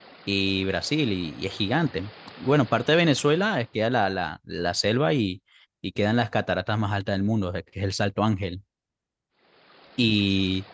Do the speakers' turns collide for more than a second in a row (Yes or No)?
No